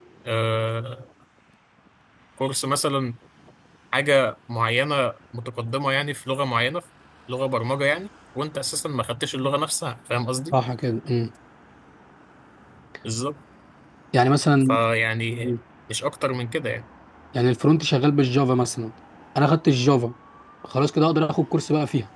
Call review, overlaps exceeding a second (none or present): none